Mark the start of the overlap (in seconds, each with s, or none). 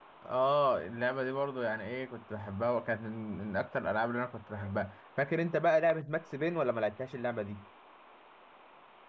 none